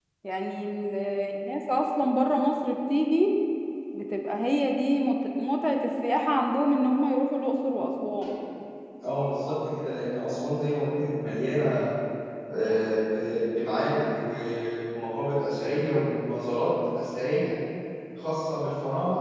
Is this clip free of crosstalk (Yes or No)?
Yes